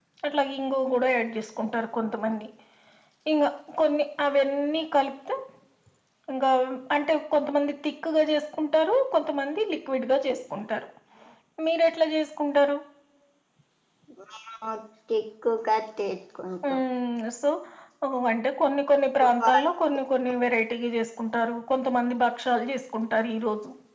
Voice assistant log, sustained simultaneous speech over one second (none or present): none